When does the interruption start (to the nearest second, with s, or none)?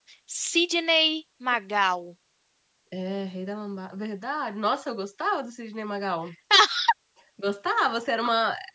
none